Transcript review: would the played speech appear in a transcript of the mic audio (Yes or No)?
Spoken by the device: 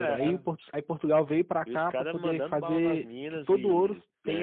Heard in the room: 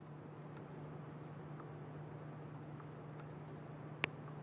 No